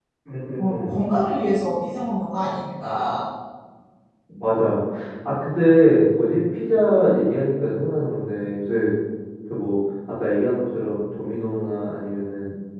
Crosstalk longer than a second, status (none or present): none